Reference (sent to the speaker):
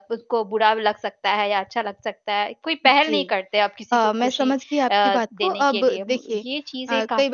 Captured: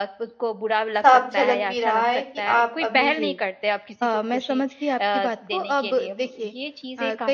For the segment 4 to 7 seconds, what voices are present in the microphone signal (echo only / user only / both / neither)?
echo only